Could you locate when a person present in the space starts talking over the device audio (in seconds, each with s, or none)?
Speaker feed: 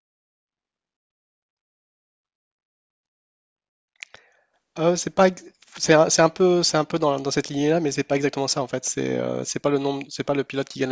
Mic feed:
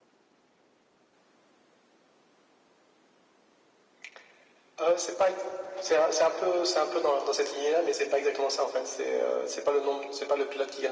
none